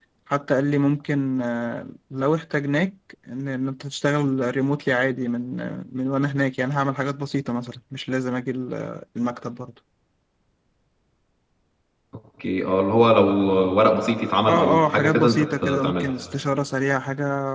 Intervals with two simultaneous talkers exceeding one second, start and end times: 14.5-16.1

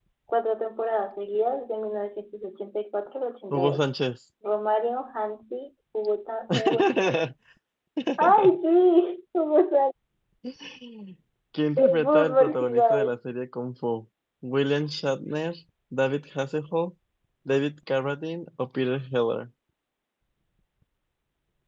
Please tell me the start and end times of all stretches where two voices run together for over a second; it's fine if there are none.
11.8-13.1

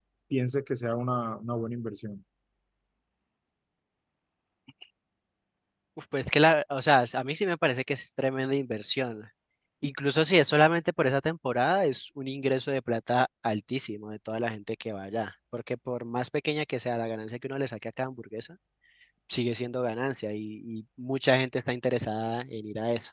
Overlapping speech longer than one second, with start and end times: none

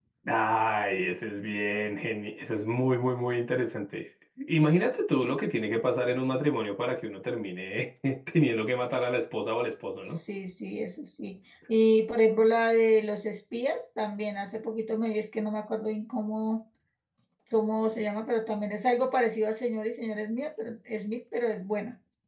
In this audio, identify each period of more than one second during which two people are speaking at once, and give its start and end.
none

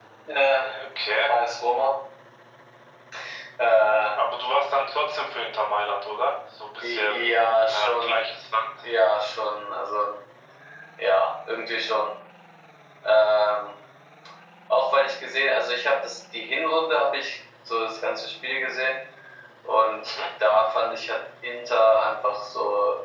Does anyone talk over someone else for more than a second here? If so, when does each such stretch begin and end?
6.8-8.2

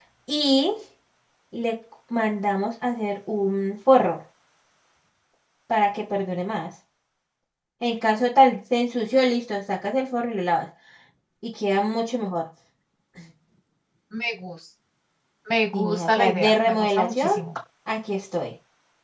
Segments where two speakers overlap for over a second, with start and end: 15.7-17.3

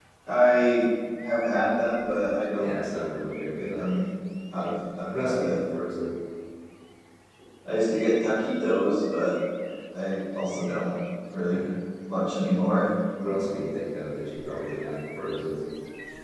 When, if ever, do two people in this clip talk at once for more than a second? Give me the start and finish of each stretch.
none

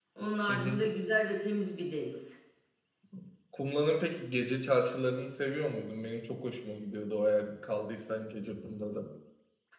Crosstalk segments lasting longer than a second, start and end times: none

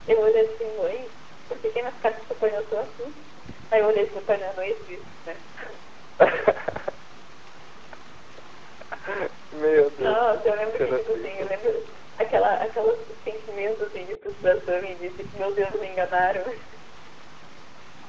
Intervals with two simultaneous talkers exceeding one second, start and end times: 10.0-11.6

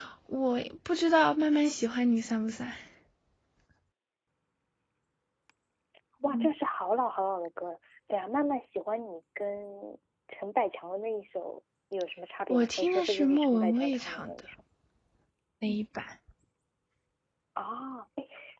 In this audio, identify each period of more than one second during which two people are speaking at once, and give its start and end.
12.5-14.3

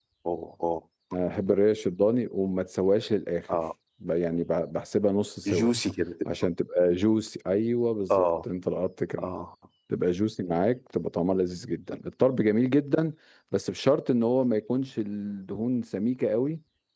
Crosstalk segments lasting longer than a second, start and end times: none

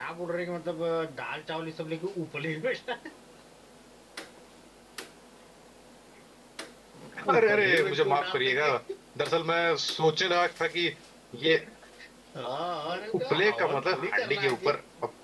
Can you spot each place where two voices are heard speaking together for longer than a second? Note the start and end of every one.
7.3-8.7, 13.3-14.7

